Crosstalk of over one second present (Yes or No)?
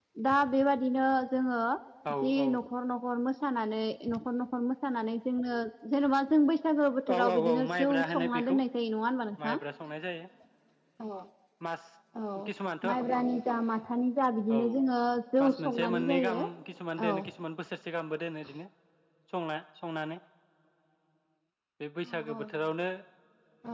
Yes